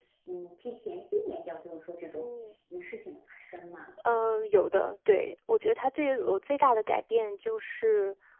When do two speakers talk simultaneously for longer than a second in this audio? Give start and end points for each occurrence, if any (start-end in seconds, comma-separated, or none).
none